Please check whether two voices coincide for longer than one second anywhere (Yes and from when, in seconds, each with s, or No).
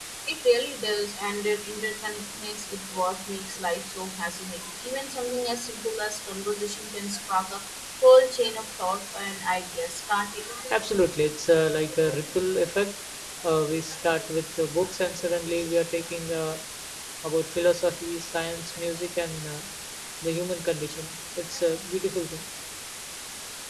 No